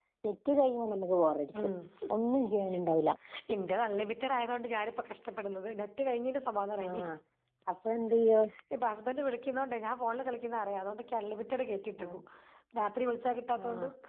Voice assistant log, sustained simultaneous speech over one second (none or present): none